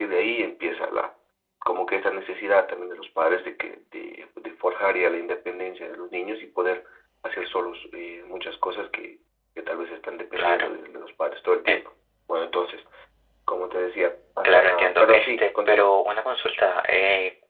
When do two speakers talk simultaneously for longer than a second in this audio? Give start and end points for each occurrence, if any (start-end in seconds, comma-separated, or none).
14.4-15.9